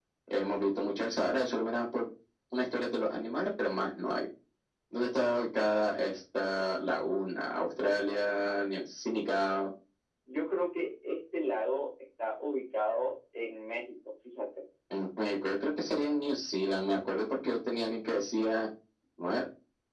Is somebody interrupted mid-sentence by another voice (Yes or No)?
No